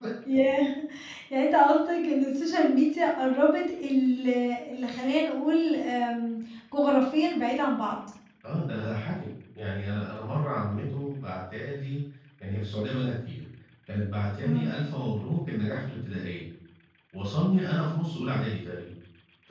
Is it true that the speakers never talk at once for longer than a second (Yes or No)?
Yes